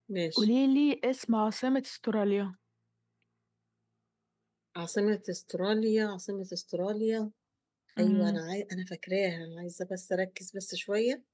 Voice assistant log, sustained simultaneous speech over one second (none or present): none